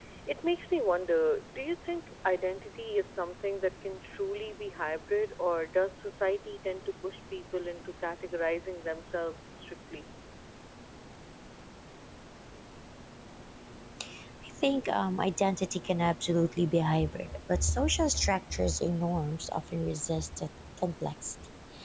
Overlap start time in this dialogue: none

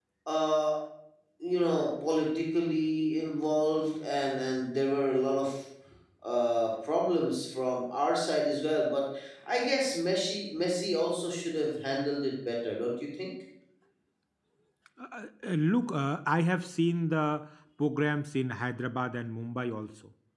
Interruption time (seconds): none

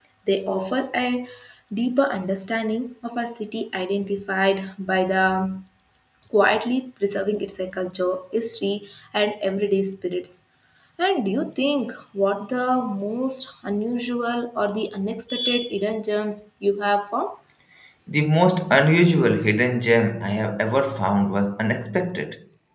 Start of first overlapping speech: none

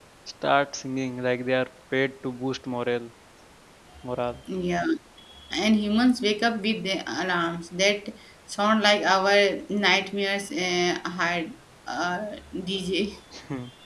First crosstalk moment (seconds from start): none

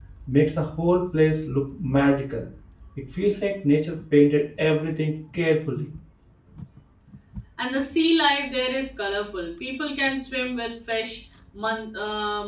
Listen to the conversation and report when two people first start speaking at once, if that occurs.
none

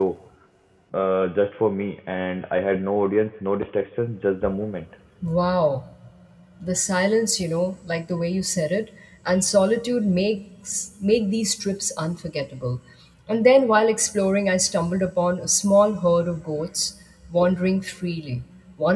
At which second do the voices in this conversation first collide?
none

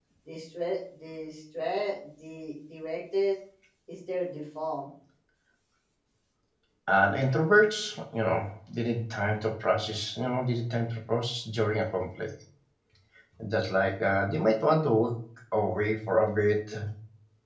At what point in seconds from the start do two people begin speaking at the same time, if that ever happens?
none

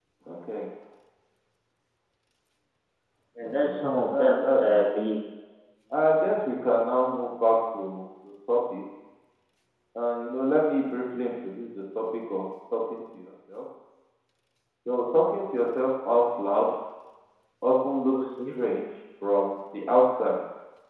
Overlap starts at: 4 s

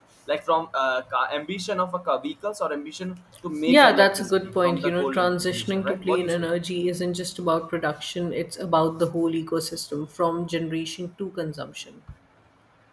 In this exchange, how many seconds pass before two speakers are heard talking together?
4 s

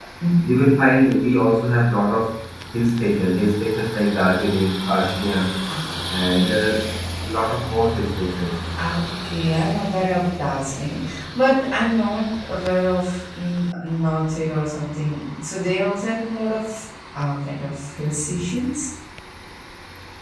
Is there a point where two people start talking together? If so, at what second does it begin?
none

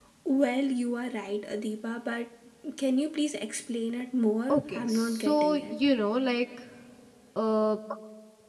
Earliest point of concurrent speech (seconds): 4 s

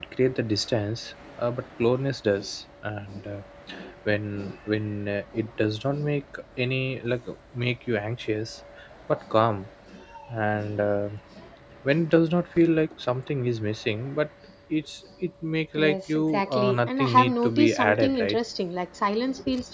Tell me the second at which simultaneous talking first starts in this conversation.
16 s

